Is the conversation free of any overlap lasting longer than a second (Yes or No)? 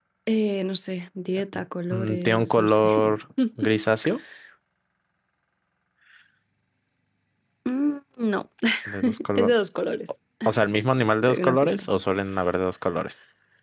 No